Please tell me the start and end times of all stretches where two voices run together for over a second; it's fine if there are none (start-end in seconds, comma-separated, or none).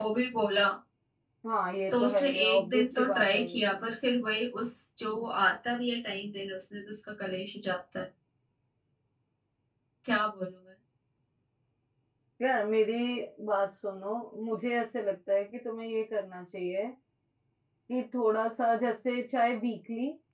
1.9-3.8